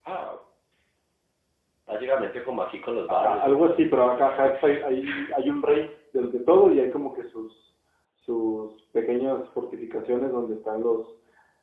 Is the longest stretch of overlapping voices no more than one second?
No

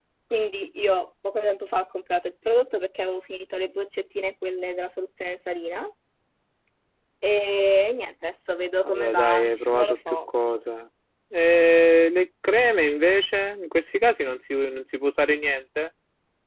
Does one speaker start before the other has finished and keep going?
Yes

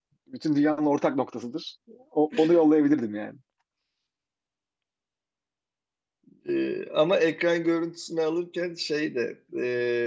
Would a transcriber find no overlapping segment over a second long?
Yes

